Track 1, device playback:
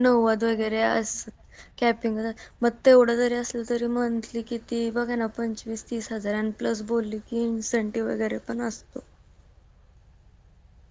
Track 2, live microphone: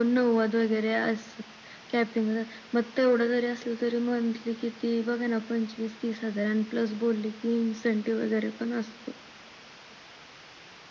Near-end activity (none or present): none